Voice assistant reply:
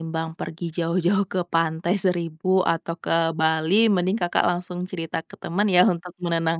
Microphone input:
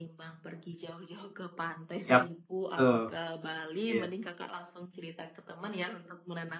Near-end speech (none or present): present